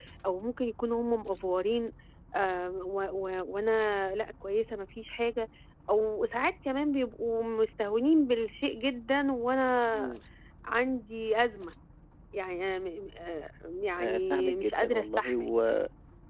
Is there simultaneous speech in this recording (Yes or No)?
Yes